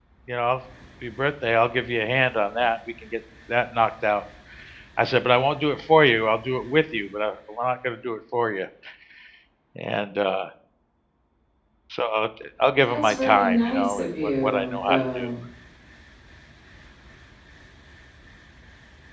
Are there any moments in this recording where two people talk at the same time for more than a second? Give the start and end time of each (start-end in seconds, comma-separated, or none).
12.8-15.3